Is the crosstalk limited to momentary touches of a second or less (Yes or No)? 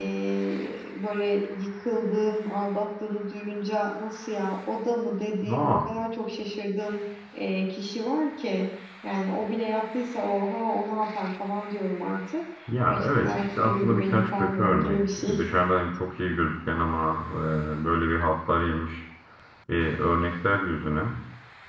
No